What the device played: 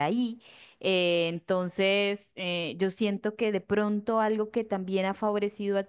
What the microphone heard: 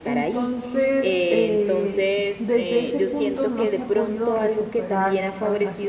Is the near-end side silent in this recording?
No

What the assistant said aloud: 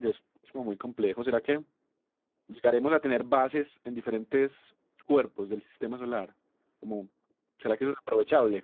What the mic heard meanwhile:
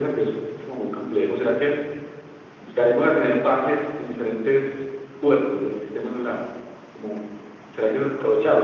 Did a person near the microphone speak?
No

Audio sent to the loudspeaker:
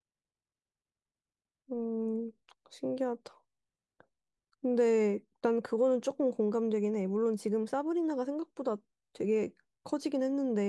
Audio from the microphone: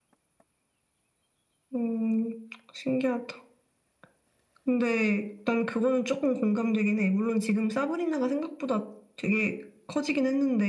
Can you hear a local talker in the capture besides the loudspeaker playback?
No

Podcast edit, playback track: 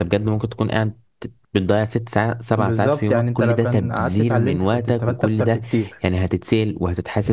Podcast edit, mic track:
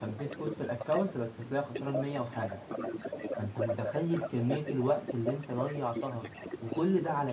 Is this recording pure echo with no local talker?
No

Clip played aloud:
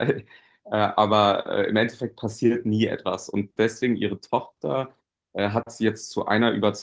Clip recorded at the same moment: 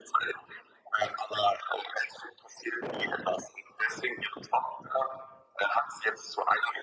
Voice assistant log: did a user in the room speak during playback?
No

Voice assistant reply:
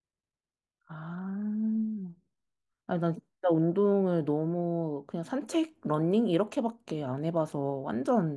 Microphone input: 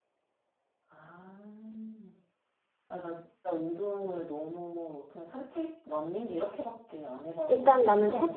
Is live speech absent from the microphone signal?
No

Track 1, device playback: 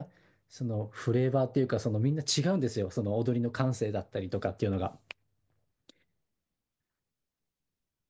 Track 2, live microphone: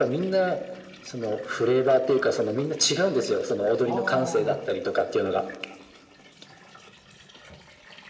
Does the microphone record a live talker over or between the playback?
Yes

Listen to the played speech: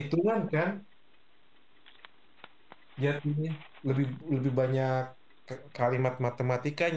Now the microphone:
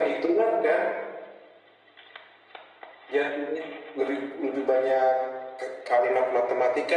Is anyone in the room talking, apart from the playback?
No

